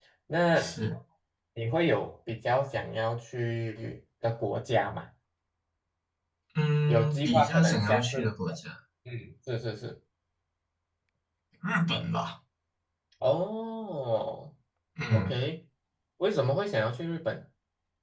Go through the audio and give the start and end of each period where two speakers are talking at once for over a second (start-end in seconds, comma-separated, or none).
6.9-8.2